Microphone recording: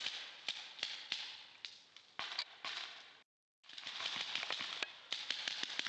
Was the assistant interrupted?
No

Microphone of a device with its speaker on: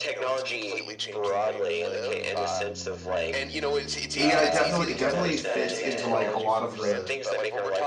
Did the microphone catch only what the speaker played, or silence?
No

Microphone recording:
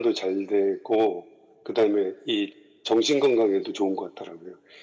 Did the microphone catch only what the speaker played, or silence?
Yes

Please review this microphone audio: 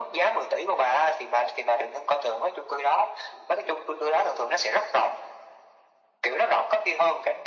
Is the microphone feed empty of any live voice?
Yes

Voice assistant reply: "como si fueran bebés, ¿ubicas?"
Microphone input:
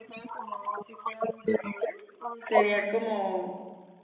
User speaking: Yes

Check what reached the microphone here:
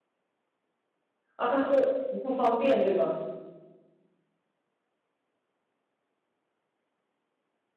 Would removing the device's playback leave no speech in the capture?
No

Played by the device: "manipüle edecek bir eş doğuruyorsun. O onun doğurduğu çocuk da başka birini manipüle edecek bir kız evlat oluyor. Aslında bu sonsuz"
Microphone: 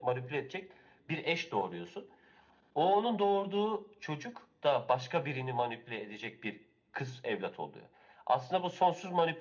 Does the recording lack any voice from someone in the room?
Yes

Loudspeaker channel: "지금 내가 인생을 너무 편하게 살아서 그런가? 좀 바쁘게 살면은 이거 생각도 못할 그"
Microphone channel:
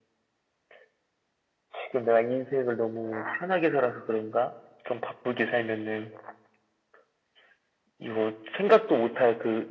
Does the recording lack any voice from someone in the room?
Yes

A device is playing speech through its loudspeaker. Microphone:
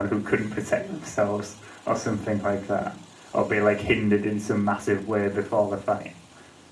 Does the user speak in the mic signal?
Yes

